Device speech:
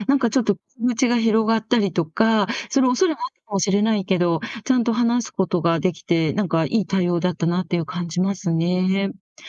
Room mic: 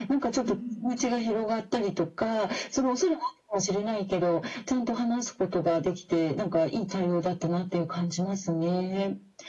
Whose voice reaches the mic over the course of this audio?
both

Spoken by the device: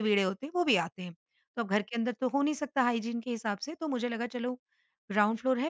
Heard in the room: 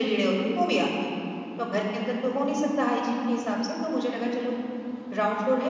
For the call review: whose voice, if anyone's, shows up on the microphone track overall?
echo only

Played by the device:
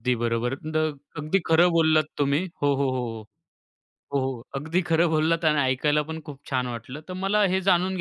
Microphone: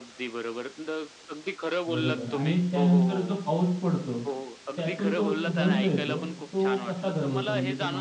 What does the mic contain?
both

